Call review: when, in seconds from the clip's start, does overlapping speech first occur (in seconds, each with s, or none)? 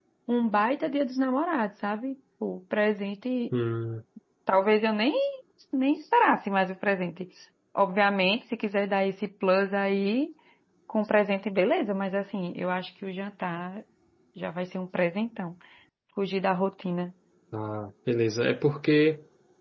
none